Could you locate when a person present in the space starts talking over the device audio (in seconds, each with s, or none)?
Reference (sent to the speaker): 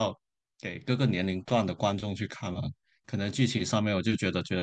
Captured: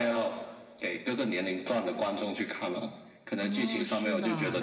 3.4 s